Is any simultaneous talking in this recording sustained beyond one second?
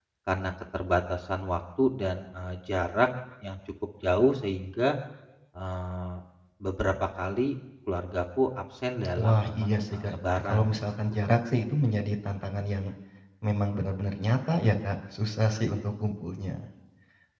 Yes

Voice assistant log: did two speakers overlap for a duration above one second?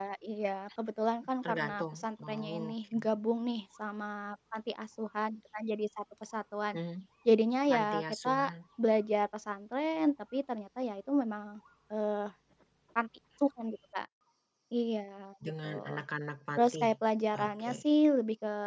Yes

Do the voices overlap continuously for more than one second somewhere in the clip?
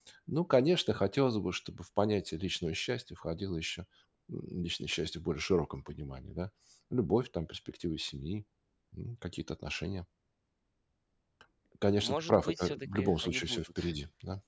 Yes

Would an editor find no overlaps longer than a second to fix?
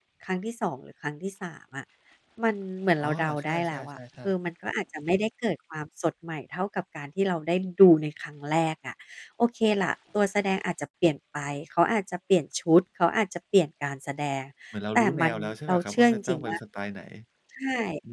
No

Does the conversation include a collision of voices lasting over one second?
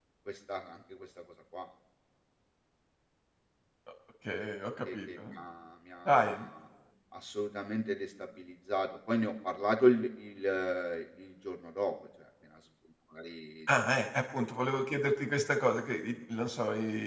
No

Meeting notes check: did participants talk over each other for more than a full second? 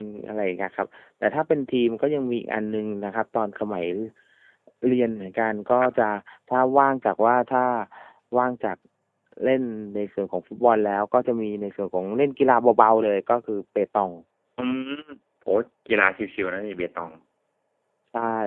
No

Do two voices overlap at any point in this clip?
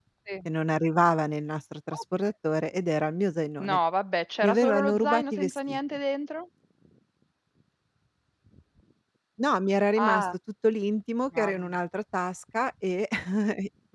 Yes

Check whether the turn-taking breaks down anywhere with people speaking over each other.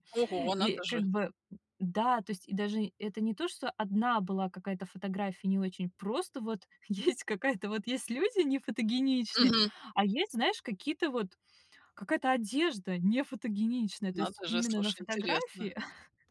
Yes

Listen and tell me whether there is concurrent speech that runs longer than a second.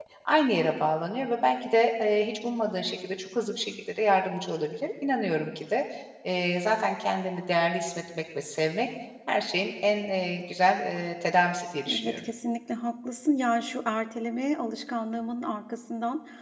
No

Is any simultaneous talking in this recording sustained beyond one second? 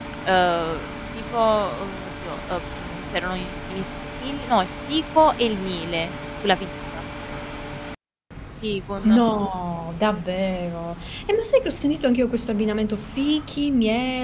No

